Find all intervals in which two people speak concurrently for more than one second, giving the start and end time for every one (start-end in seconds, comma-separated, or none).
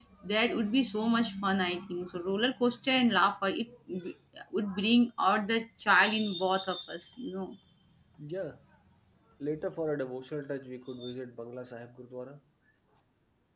none